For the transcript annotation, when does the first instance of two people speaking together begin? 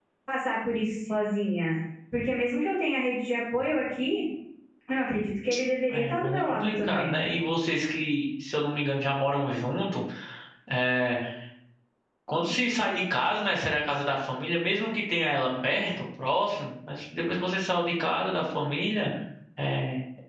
5.9 s

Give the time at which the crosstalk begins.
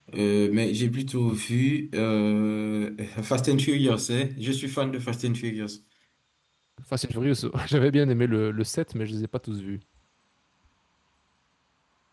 none

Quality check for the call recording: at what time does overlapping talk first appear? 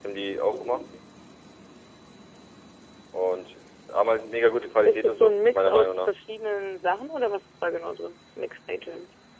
4.8 s

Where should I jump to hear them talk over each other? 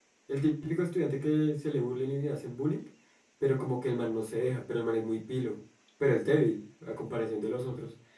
none

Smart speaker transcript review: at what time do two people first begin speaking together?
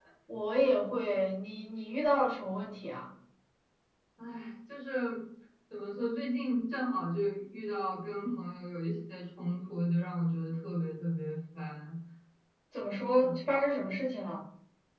none

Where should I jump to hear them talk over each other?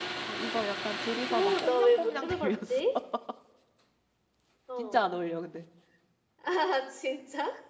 1.3 s

